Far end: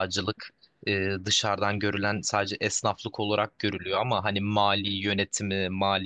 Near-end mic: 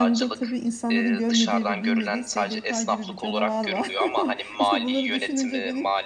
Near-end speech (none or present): present